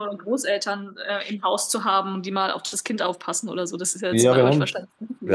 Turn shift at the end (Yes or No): Yes